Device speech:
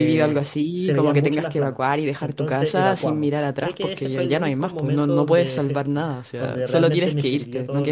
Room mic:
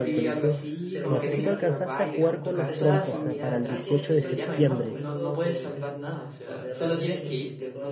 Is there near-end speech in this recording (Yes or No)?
Yes